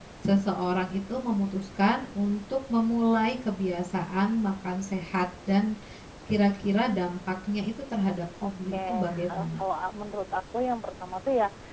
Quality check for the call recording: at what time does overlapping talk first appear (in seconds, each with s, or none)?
8.4 s